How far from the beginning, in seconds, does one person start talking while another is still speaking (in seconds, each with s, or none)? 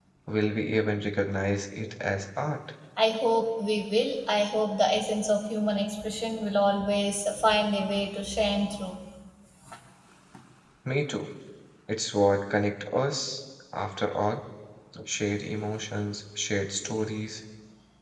none